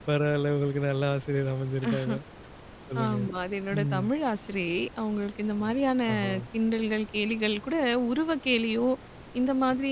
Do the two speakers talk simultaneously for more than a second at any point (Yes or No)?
No